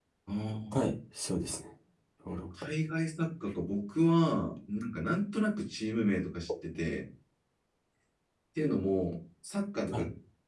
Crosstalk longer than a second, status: none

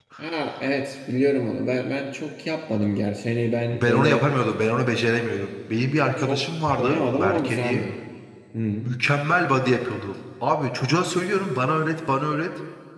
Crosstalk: present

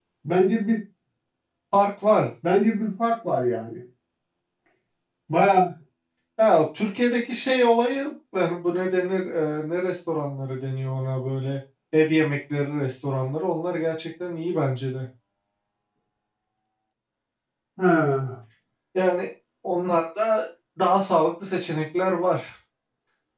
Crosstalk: none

